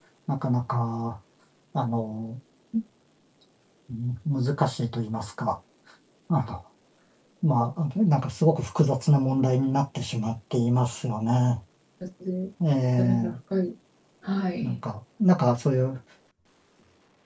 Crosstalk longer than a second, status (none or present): none